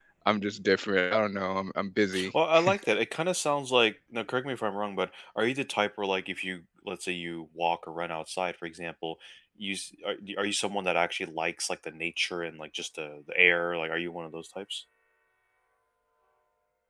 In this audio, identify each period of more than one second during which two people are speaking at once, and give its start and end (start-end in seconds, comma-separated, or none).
none